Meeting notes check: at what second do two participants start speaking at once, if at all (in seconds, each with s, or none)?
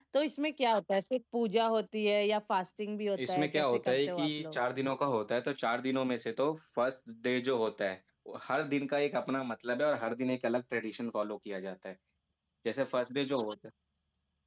3.2 s